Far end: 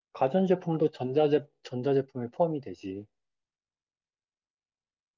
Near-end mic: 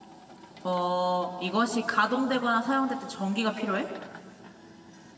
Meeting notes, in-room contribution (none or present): present